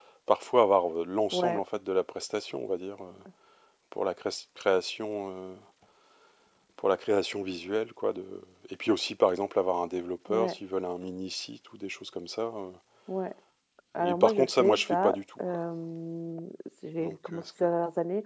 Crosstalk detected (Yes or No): Yes